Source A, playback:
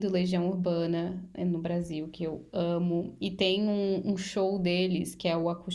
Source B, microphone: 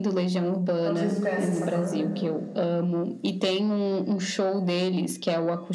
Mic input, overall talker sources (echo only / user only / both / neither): both